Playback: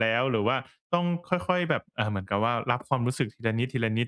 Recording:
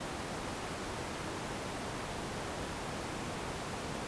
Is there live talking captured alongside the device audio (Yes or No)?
No